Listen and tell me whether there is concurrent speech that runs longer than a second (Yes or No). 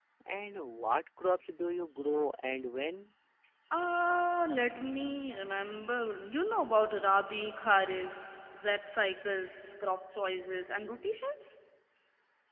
No